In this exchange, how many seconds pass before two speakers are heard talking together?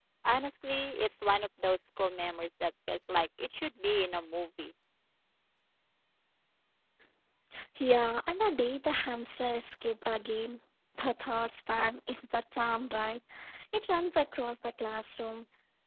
none

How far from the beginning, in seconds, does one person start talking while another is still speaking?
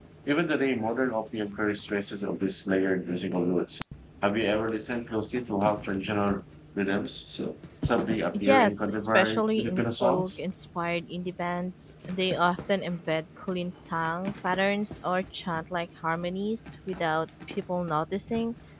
8.3 s

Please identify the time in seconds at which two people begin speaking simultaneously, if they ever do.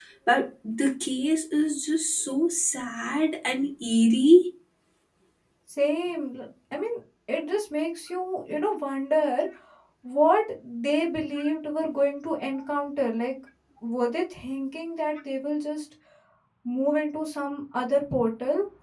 none

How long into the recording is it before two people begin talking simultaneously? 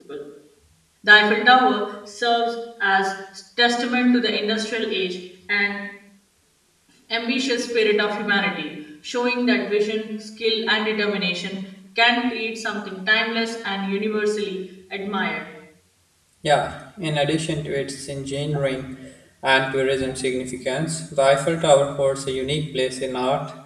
none

